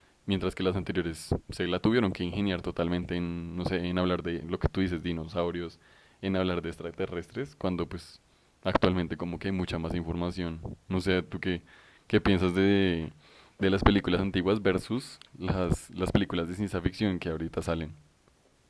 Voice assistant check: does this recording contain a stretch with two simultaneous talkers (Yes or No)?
No